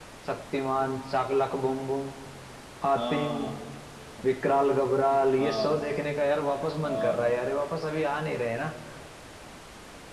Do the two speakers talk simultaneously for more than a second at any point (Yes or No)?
No